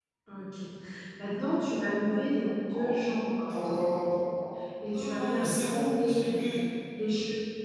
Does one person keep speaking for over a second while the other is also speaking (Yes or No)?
Yes